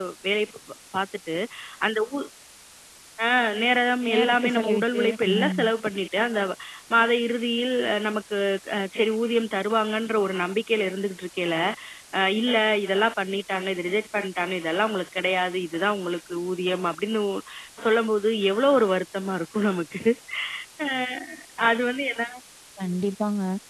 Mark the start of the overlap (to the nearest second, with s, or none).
4 s